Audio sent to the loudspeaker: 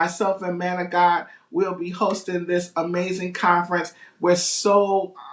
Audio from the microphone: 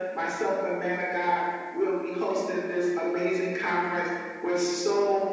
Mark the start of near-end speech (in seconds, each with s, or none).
none